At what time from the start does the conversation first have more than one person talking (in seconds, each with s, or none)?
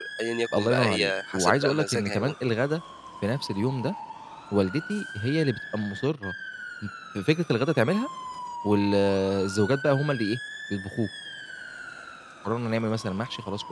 0.5 s